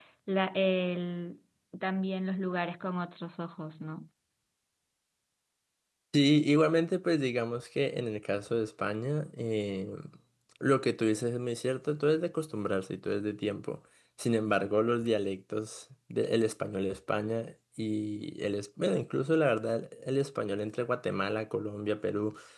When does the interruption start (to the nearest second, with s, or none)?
none